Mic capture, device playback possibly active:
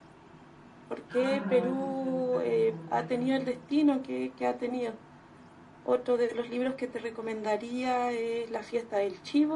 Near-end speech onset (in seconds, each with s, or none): 1.1 s